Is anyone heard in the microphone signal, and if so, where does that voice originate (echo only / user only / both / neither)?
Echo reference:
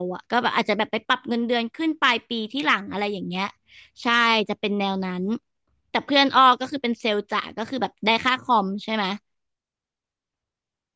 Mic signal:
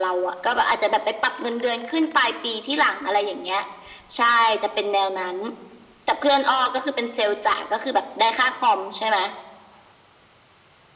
echo only